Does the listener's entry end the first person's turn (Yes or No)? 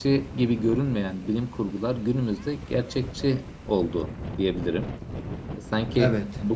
No